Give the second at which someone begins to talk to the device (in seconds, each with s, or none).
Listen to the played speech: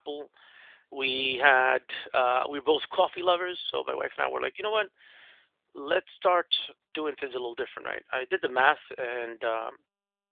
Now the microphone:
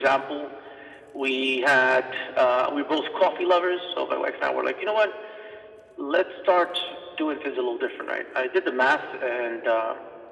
none